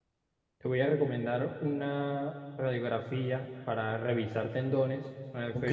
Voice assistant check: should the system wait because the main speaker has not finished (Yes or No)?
Yes